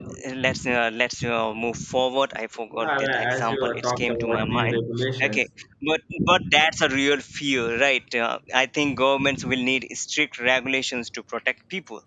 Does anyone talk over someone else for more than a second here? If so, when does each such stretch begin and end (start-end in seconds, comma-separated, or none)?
2.8-4.8